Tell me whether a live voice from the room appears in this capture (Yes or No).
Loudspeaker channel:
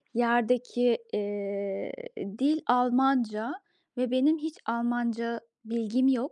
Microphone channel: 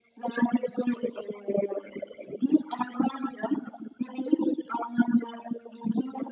No